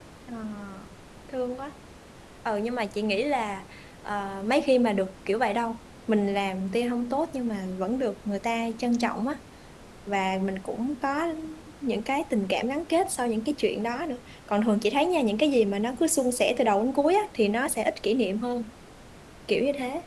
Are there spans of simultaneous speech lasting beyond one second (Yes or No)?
No